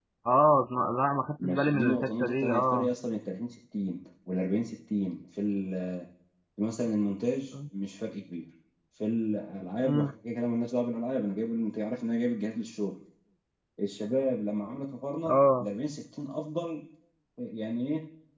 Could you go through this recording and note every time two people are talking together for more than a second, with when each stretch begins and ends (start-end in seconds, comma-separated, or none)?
1.4-2.9